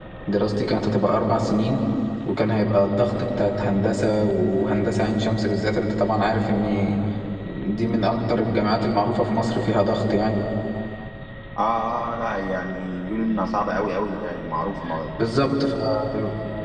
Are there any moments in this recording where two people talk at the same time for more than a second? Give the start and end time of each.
none

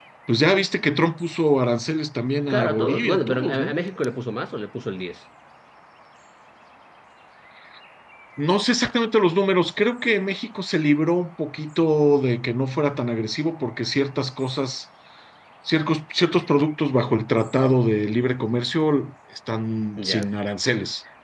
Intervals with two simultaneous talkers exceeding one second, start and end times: 2.5-3.7

